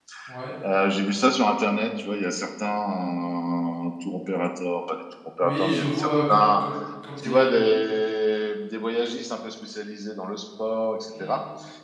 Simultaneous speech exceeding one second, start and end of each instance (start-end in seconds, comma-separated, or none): 5.4-6.6